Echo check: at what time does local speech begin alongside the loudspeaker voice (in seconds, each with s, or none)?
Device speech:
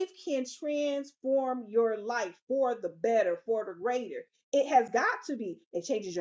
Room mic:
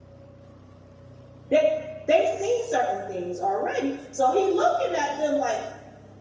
1.5 s